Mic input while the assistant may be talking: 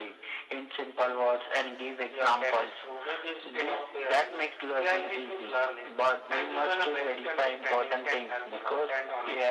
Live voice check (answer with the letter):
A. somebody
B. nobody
B